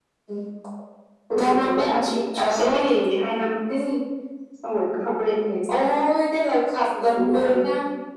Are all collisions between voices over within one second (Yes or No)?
No